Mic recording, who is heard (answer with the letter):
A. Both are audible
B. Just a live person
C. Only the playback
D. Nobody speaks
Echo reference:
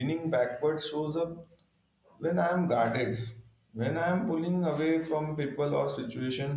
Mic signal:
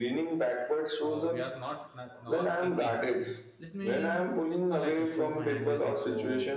A